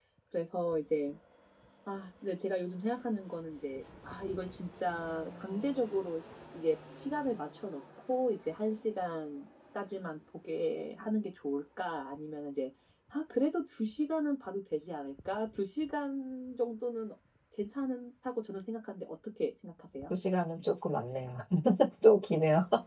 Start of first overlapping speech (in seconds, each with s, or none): none